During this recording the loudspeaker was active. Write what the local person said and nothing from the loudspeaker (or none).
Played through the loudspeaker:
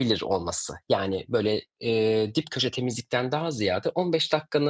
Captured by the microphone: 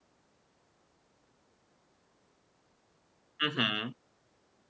Hı hı.